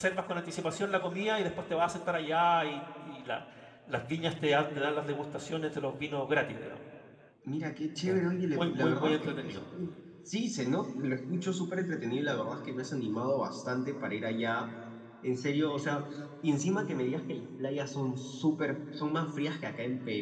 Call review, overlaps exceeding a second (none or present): present